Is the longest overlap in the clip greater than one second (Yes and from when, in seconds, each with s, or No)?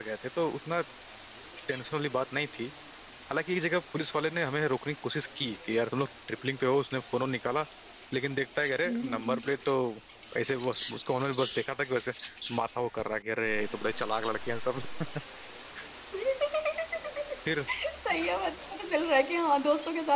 No